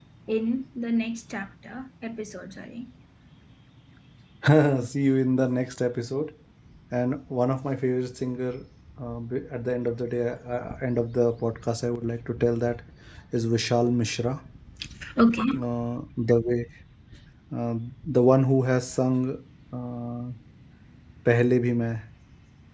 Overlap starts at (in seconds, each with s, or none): none